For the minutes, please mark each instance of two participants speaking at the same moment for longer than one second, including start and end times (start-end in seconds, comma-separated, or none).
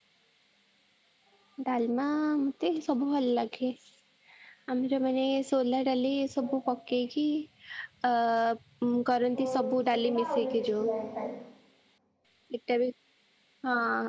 9.3-10.9